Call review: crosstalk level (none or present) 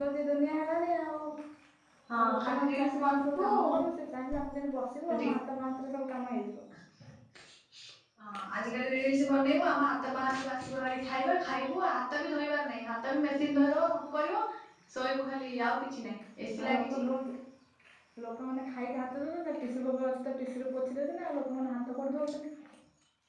present